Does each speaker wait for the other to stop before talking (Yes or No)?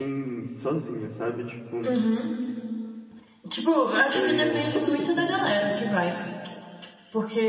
No